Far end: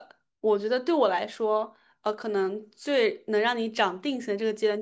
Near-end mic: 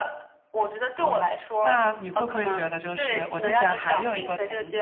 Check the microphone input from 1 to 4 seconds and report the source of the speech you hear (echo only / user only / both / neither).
both